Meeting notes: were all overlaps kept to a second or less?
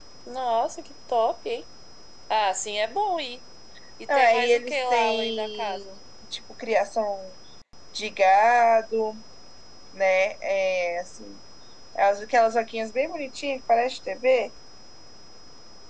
No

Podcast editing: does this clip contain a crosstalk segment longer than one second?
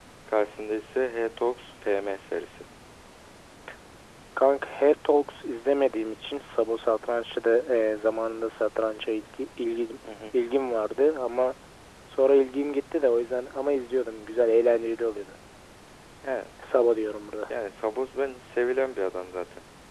No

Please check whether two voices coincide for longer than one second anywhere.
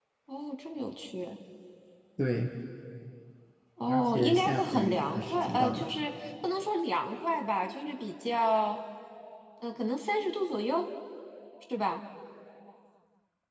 Yes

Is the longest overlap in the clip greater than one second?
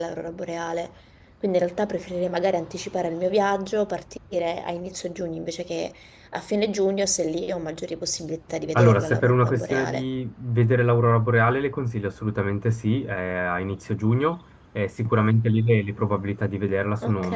Yes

